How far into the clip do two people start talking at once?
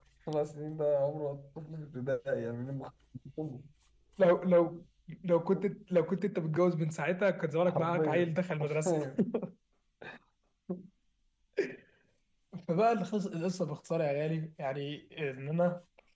7.7 s

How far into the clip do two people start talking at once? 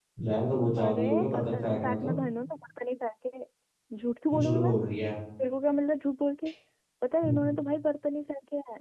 0.8 s

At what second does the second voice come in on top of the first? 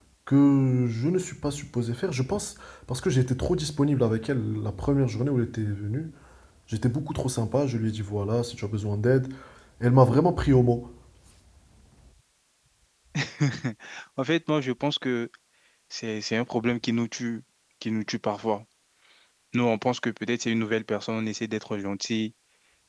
none

